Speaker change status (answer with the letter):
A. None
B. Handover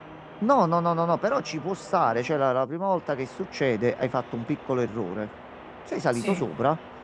A